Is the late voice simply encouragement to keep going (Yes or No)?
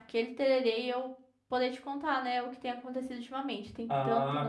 No